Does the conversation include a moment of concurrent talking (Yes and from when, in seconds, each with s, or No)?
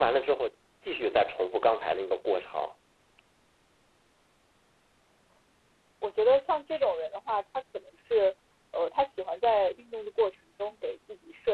No